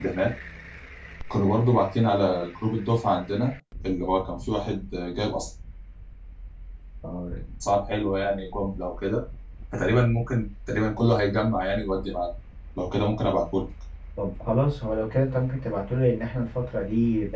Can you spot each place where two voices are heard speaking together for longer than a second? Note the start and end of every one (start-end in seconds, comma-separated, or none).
none